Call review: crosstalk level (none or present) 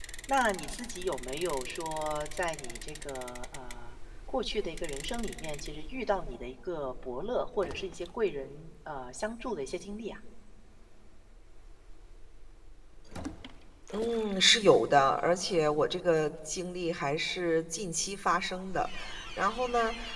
none